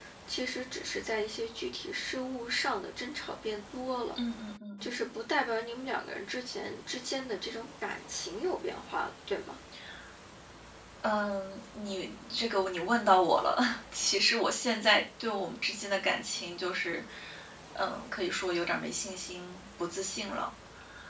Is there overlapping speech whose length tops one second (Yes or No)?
No